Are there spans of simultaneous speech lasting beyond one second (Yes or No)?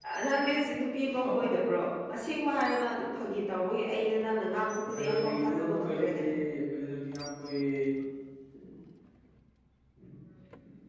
Yes